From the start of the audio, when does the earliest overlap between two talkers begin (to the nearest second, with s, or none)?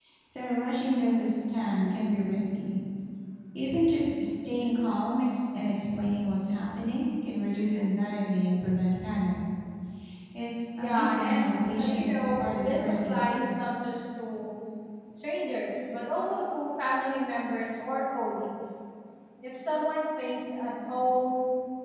11 s